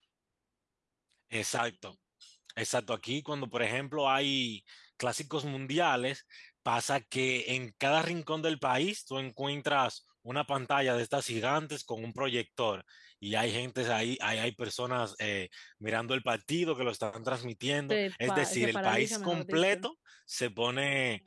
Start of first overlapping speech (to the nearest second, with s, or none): 18 s